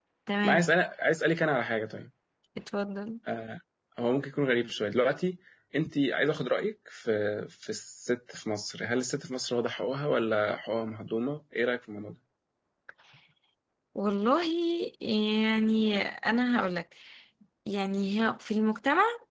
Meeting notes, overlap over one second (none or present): none